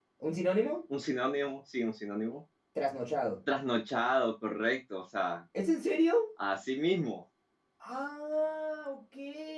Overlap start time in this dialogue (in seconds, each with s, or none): none